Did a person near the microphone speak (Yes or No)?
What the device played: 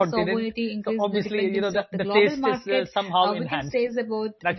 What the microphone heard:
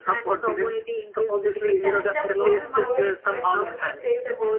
Yes